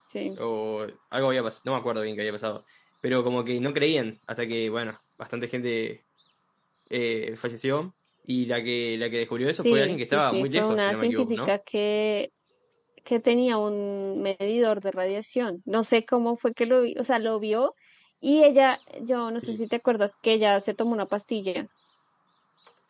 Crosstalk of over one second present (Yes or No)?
Yes